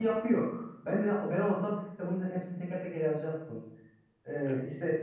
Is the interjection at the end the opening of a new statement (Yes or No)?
No